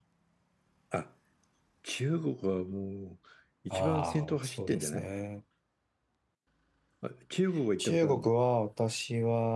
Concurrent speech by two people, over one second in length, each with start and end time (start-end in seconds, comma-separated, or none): 3.7-5.1